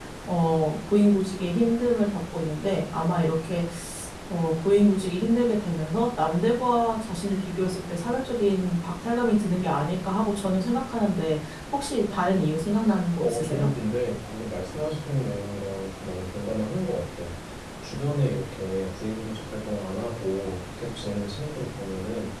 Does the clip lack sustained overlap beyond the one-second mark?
Yes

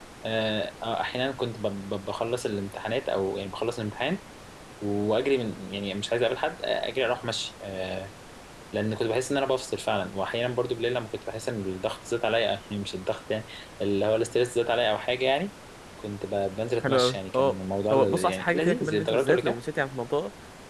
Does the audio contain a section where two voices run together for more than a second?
Yes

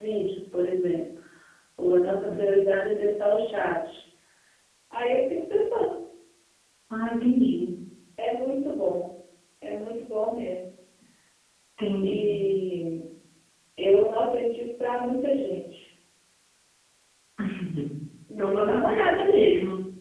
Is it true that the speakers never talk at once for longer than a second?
No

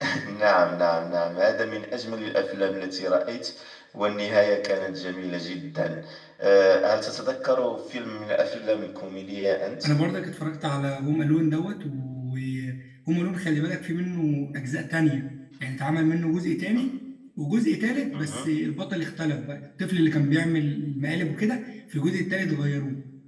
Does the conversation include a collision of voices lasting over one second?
No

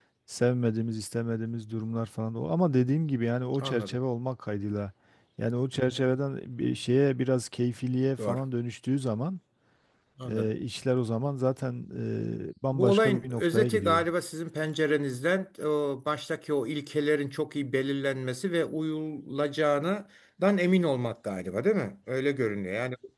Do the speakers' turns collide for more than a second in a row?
Yes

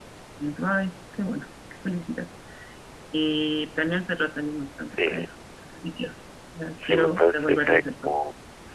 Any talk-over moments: Yes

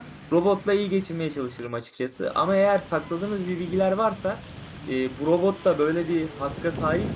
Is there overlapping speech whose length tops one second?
No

